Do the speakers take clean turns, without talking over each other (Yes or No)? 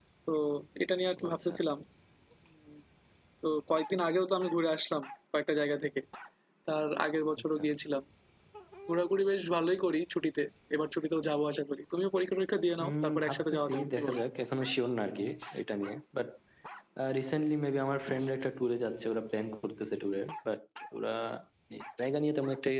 No